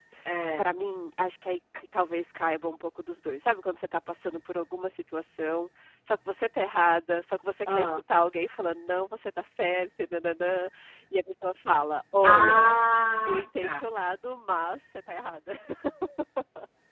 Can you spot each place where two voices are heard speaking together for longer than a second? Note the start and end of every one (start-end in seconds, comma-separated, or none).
none